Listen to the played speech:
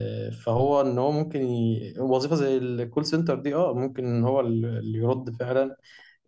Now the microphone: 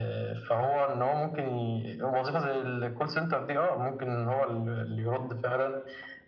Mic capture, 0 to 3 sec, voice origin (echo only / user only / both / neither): echo only